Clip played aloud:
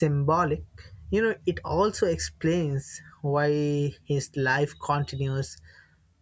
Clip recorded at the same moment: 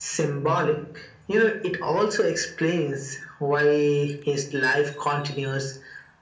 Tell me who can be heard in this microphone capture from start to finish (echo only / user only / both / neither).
echo only